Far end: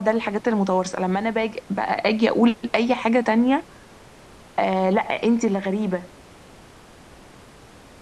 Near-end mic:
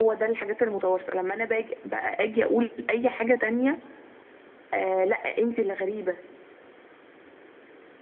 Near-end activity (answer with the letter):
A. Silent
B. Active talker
A